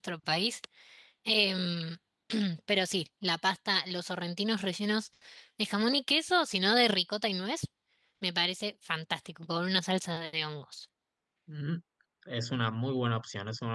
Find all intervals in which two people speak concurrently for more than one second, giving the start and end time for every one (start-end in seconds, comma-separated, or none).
none